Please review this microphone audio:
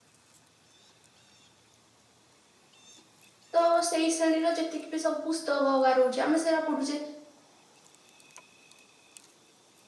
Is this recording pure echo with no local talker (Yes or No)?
No